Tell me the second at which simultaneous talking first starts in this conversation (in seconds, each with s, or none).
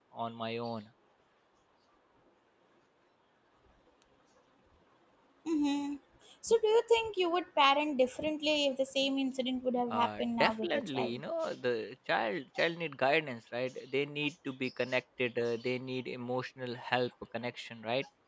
9.9 s